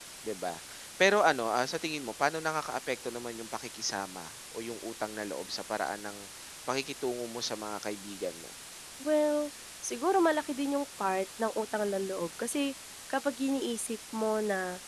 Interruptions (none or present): none